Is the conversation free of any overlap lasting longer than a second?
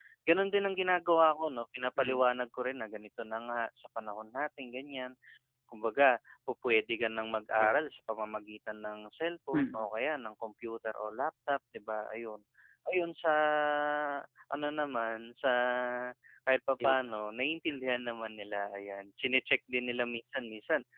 Yes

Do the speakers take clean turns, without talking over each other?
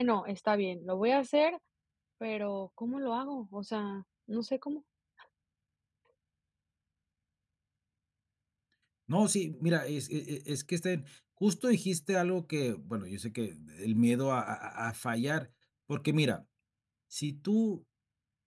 Yes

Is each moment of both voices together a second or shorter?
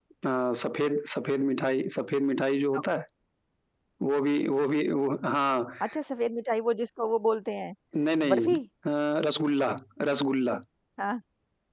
Yes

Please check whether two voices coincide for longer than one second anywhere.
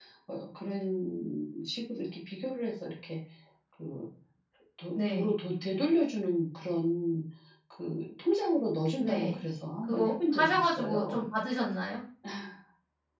Yes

